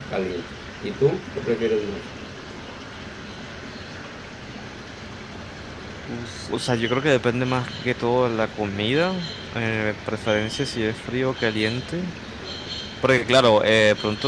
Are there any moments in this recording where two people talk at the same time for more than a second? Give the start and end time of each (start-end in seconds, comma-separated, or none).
none